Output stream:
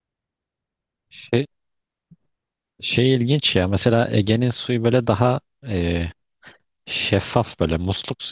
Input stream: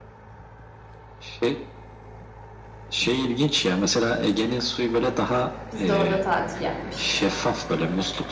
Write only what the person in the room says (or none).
Biz de orada tatil yapmıştık.